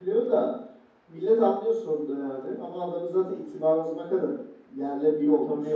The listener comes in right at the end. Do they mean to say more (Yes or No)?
Yes